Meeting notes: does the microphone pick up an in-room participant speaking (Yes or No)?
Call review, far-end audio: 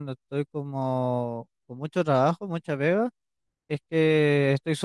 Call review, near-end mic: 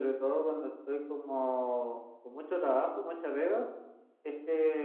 No